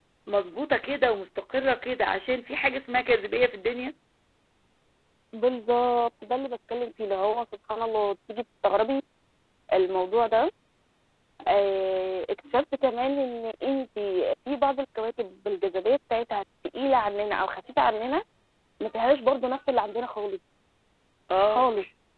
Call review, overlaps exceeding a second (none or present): none